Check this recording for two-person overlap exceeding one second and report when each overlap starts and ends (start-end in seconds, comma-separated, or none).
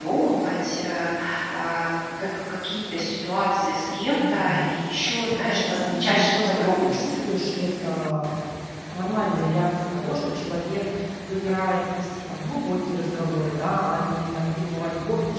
5.4-7.1